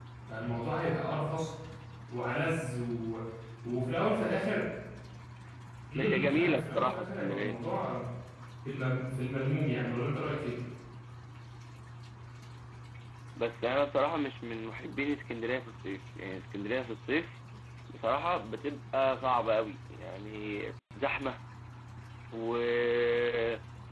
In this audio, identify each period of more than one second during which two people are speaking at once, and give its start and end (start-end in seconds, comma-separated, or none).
6.0-7.6